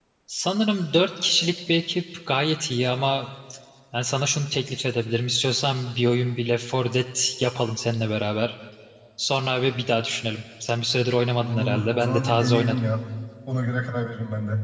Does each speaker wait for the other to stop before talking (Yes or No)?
No